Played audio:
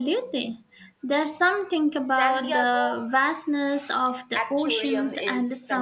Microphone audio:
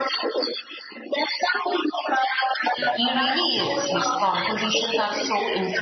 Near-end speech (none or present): present